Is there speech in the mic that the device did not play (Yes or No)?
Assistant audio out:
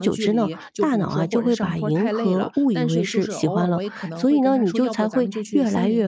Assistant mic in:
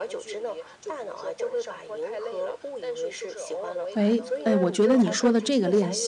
Yes